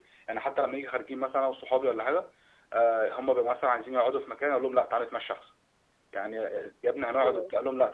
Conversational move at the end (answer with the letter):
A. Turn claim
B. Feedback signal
B